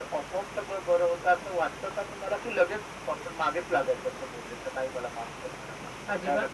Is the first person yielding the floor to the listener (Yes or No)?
Yes